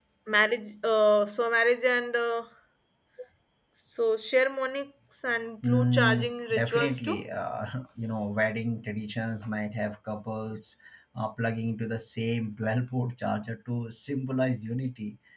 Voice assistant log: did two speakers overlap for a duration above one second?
Yes, from 5.6 s

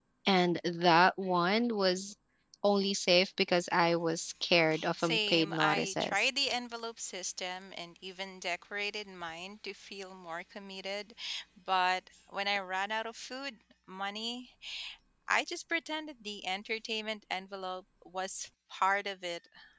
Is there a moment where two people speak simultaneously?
Yes, from 5.0 s

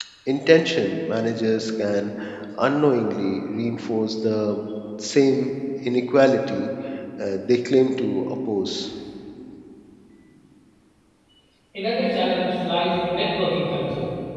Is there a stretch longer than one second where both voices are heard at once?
No

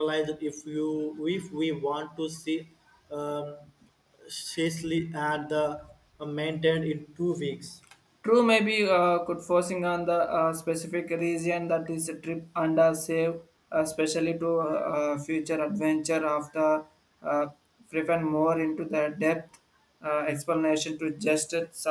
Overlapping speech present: No

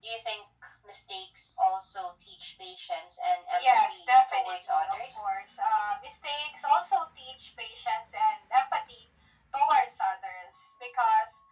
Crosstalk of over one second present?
Yes, from 3.5 s

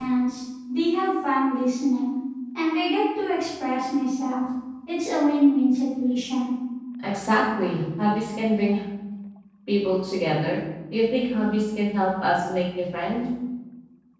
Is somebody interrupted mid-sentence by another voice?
No

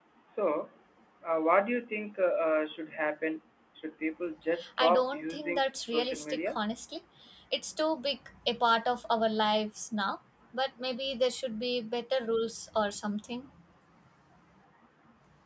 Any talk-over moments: Yes, from 4.6 s

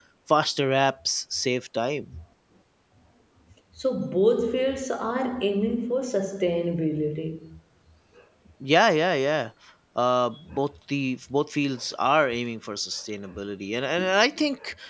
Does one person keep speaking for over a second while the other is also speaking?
No

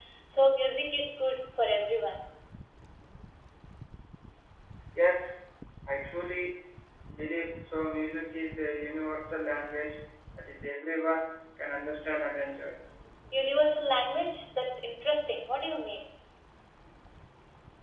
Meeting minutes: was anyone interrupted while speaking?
No

